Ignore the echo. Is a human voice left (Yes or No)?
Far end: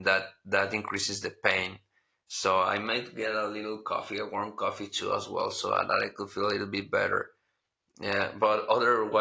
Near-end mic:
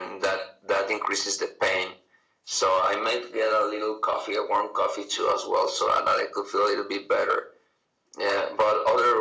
No